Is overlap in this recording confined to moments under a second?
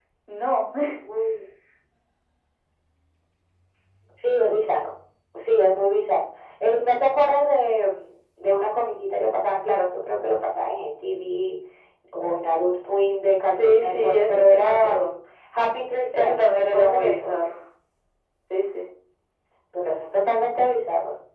No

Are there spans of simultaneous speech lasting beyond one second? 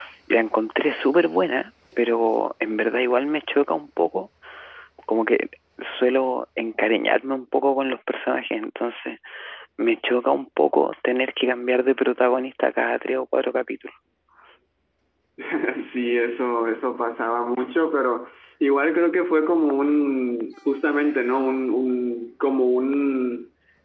No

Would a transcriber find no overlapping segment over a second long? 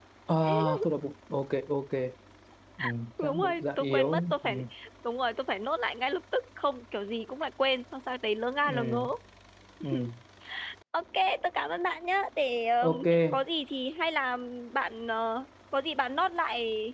No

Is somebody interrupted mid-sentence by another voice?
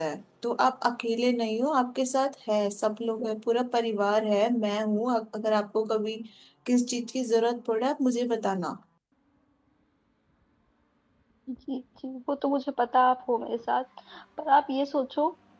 No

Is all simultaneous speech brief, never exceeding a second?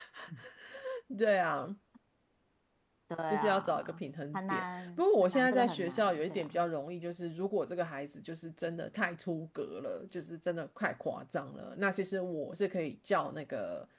No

